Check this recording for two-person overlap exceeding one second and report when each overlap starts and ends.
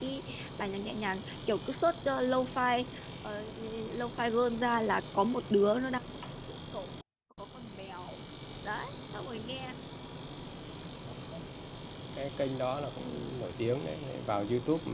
none

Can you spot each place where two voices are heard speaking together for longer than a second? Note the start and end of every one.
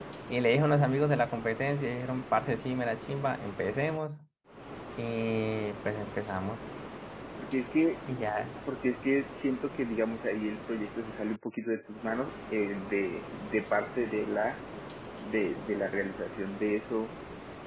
none

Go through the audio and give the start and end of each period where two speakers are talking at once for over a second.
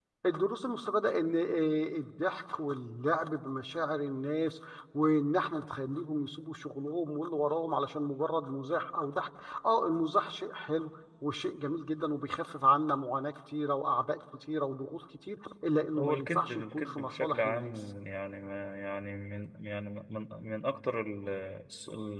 16.0-17.7

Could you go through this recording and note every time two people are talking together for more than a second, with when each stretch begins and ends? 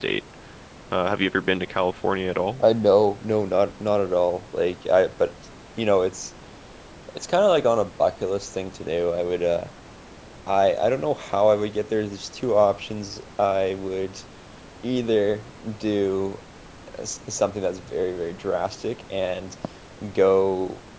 none

